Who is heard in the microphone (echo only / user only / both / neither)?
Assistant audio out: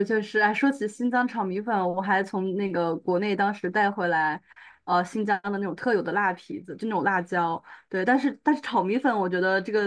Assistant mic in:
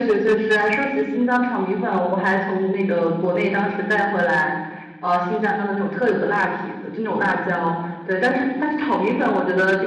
echo only